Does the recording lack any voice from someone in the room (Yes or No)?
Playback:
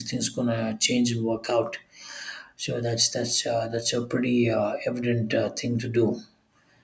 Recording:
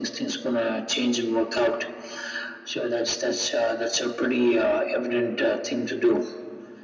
Yes